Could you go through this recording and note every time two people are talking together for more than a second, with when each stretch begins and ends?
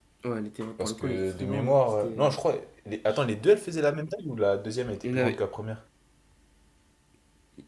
0.8-2.4

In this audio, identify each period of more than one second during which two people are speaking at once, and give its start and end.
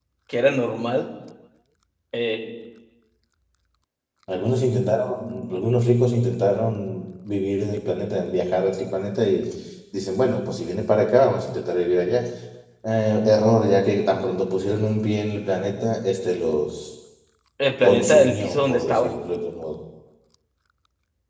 17.8-19.1

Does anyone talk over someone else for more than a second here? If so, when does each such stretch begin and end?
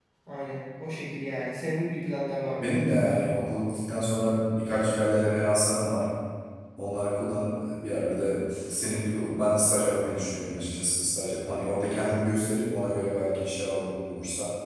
none

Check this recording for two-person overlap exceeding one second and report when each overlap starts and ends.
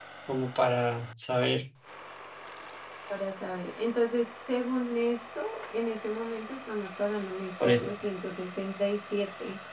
none

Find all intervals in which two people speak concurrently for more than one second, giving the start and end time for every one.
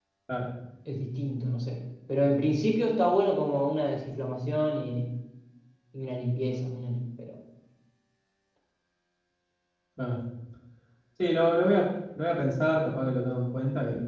none

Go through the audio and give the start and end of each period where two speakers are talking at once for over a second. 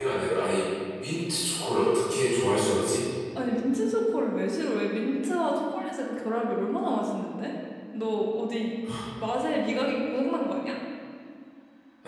none

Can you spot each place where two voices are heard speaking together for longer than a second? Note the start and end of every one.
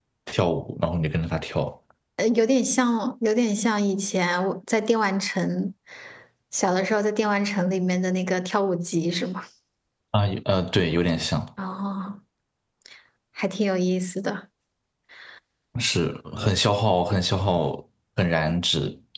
none

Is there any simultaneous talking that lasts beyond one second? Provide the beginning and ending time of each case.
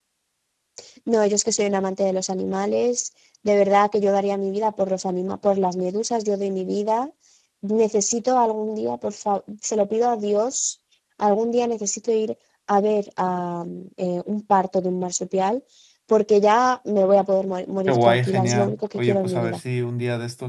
17.9-19.6

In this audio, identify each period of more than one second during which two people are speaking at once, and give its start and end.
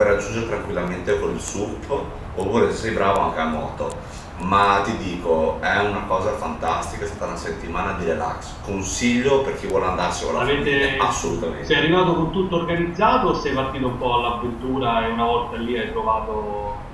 10.4-11.8

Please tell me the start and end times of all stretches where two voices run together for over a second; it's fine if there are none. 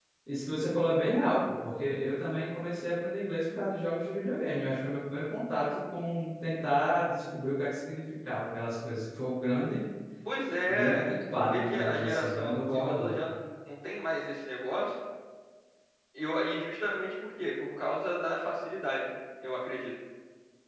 10.7-13.1

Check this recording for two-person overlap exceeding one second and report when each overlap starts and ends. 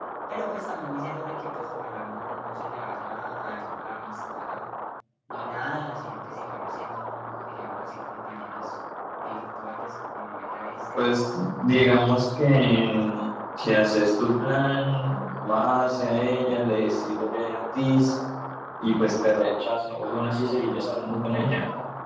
none

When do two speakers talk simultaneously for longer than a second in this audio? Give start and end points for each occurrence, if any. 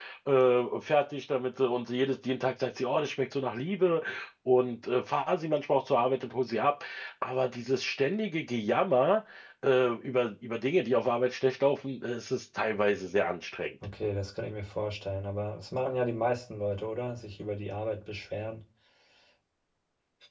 none

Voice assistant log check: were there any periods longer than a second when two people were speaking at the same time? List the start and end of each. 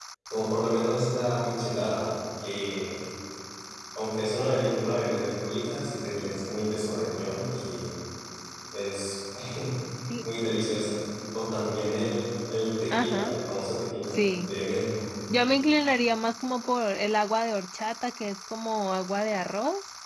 none

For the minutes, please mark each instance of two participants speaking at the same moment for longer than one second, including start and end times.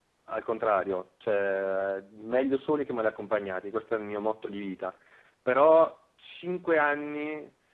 none

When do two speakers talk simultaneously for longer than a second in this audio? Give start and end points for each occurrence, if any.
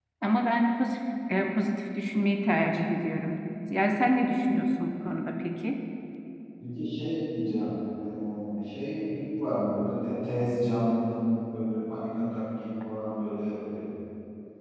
none

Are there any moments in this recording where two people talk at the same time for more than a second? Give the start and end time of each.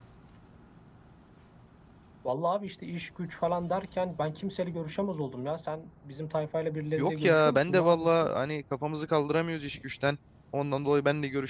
7.0-8.3

